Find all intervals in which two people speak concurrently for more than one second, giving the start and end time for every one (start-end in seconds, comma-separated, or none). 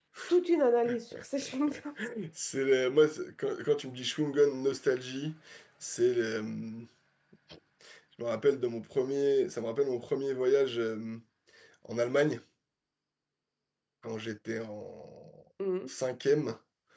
none